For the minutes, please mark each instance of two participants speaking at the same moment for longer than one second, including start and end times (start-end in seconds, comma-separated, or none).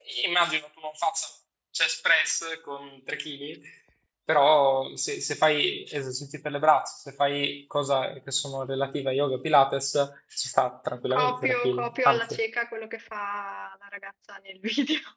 11.1-12.4